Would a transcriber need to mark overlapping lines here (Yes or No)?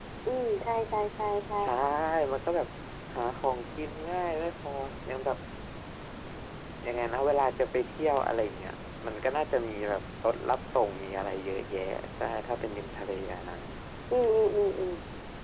No